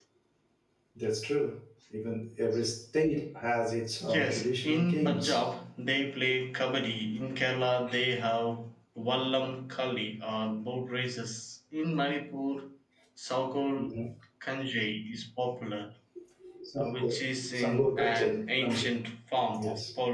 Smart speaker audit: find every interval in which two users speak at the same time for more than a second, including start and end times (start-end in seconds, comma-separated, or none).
4.0-5.5, 17.6-18.9